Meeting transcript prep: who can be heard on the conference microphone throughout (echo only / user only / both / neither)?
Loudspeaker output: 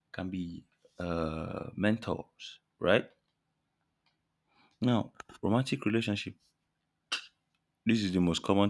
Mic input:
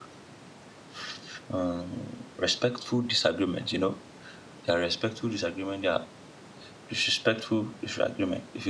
user only